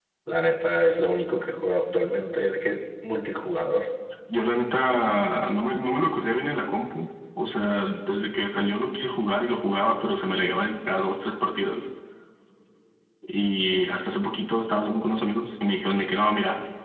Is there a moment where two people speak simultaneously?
No

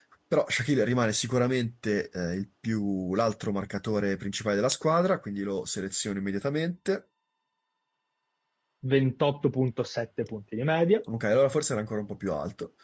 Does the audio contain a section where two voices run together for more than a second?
No

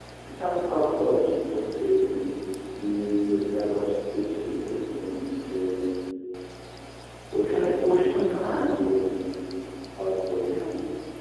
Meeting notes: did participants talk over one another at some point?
Yes, from 7.5 s

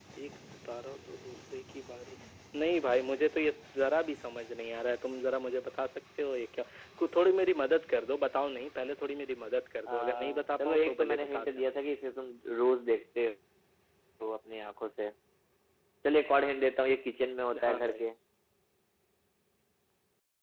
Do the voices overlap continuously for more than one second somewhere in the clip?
Yes, from 9.9 s

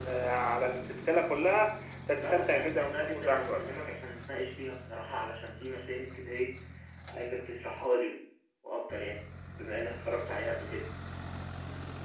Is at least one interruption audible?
Yes, from 2.2 s

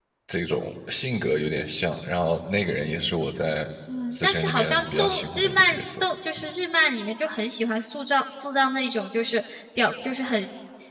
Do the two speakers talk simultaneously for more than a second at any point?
Yes, from 4.1 s

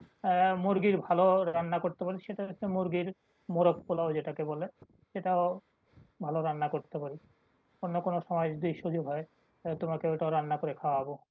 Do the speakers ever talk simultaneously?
No

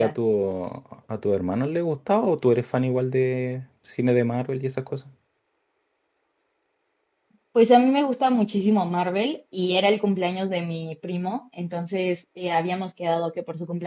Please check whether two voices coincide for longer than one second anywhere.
No

